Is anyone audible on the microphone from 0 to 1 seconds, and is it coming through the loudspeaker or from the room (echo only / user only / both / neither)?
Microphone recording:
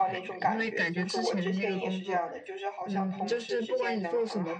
both